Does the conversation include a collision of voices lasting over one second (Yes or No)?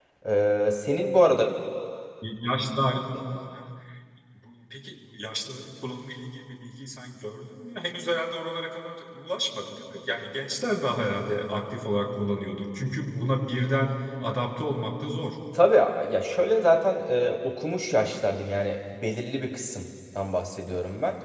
No